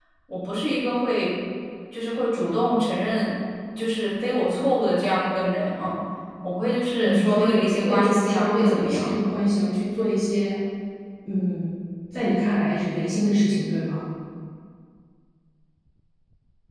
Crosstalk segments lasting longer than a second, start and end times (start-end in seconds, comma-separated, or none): 7.0-9.4